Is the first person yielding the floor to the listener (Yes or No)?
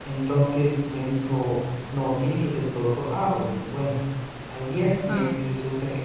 No